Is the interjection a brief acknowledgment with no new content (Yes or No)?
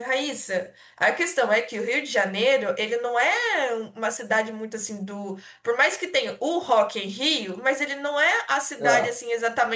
Yes